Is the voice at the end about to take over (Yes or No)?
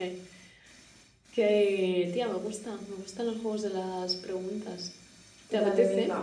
Yes